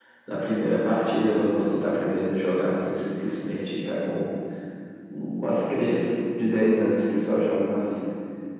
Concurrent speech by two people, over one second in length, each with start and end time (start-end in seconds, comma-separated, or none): none